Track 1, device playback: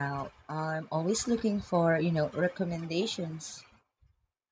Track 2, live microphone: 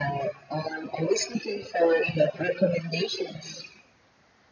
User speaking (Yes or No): No